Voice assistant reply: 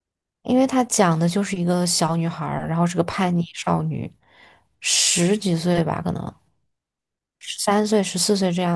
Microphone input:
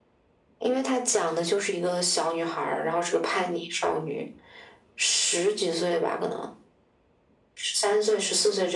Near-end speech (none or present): none